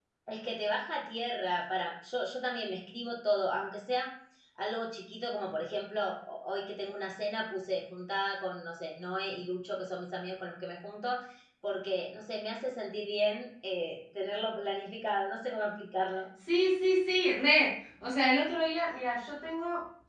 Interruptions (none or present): none